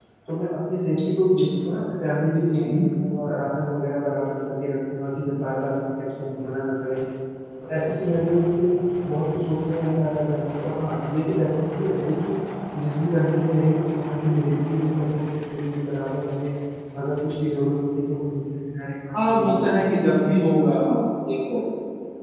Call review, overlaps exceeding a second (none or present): none